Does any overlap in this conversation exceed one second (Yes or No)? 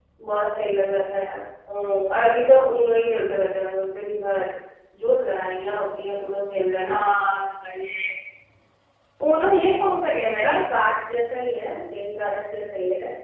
No